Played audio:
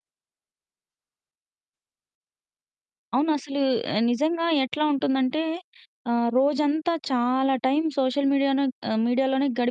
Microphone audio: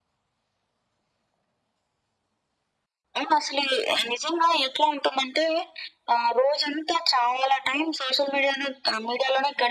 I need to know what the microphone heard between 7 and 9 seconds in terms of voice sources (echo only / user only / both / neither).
echo only